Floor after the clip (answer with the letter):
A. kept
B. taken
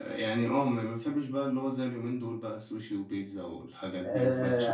B